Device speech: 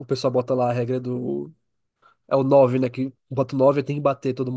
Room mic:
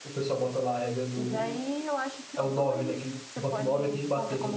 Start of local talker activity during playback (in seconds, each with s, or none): 1.1 s